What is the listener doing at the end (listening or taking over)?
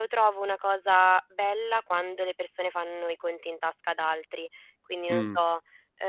listening